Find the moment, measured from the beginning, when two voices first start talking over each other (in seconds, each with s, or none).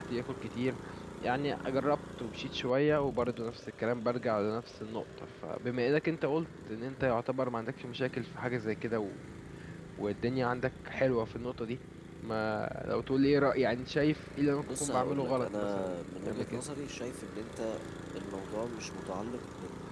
14.6 s